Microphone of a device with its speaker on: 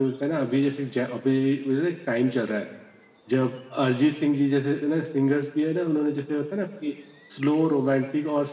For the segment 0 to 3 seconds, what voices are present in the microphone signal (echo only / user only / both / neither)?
echo only